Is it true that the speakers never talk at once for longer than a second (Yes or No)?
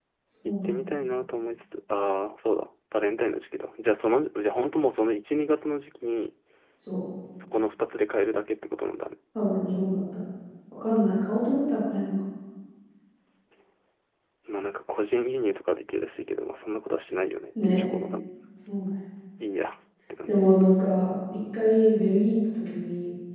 Yes